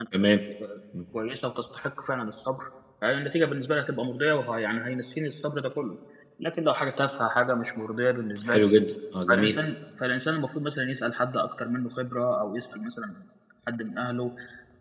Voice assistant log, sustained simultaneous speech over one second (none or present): none